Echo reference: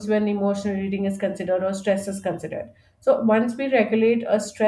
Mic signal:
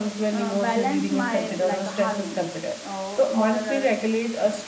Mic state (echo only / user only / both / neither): both